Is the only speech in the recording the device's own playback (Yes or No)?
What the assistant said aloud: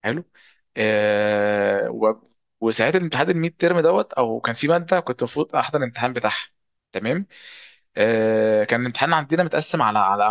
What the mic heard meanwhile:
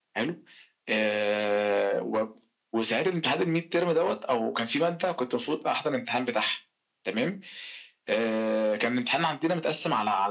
Yes